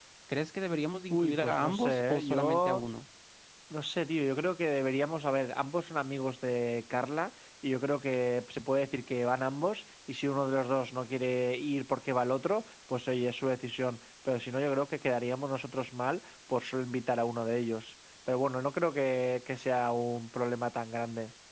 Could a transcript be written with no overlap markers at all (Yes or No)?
No